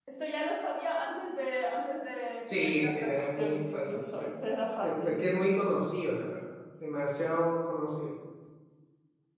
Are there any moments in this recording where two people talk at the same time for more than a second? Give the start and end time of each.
2.4-4.3

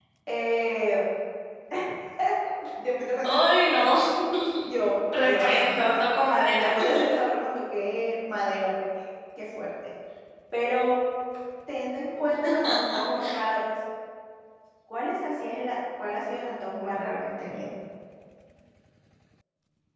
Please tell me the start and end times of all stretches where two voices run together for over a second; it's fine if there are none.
5.2-6.7

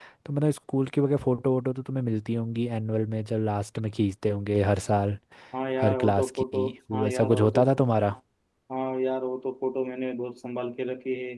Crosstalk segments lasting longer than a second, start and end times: 5.8-7.6

